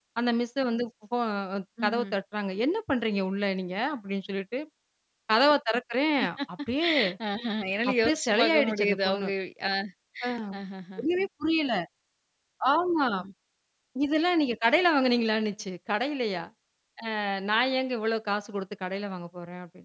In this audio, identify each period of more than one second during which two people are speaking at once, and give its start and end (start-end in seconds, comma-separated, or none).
7.9-9.3